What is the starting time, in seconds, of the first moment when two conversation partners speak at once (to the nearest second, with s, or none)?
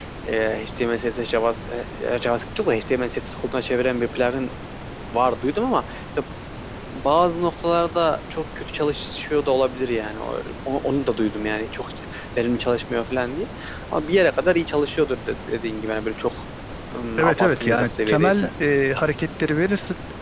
17 s